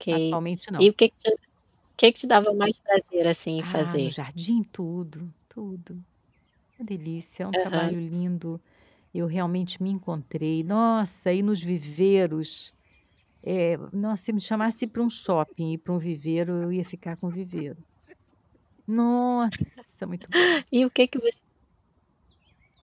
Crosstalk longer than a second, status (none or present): none